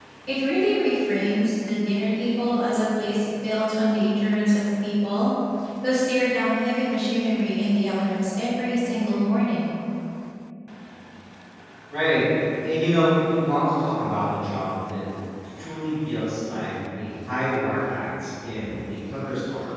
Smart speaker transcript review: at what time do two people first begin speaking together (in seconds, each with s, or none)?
none